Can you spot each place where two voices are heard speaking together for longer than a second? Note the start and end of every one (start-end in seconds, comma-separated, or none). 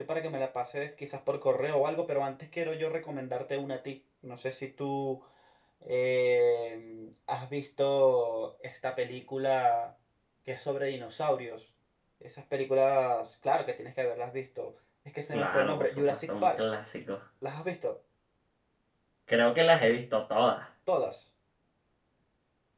15.3-16.6